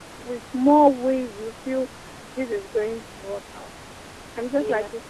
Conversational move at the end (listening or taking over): listening